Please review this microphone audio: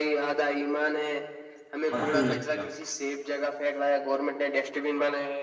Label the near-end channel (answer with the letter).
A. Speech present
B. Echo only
A